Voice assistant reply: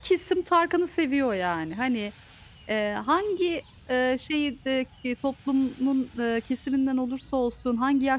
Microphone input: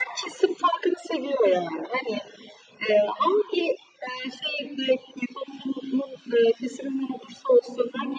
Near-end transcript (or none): none